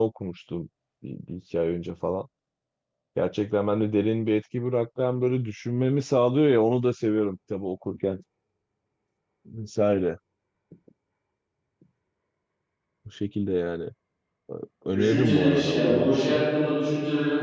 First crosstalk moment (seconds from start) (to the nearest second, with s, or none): 15 s